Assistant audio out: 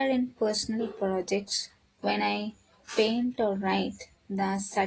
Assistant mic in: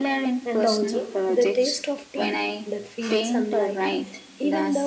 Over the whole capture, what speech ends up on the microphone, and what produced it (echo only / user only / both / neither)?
both